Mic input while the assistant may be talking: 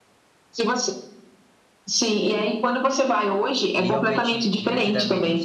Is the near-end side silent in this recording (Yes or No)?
No